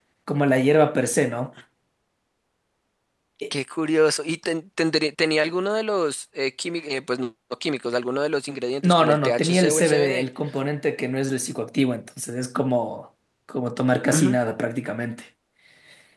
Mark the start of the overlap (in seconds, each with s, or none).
8.8 s